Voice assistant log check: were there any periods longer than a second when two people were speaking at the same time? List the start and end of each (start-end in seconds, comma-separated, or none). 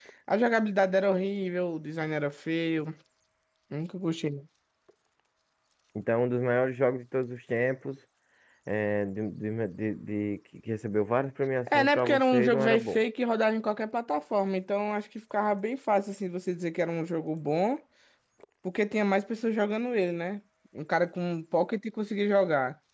11.7-13.0